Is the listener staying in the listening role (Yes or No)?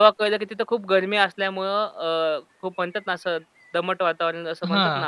No